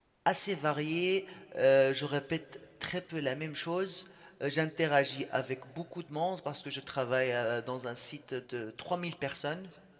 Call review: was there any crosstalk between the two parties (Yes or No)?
No